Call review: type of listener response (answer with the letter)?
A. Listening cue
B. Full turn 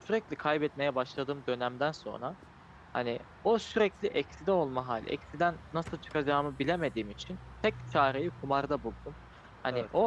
A